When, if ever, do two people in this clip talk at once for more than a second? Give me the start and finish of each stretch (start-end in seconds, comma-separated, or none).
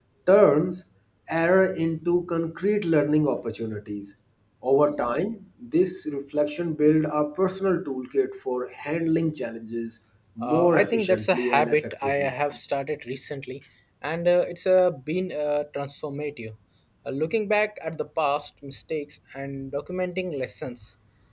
10.4-12.3